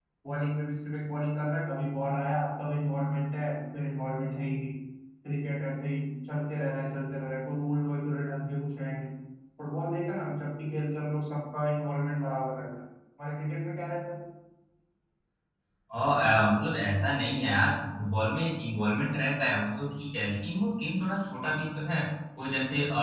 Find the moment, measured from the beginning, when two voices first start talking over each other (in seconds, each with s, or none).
none